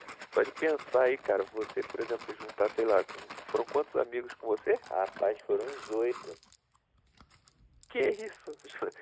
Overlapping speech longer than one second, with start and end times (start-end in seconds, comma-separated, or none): none